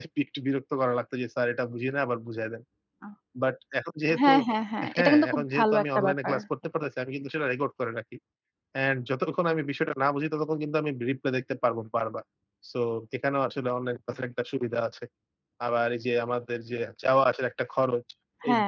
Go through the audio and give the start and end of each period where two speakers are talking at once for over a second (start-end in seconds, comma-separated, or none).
5.0-6.3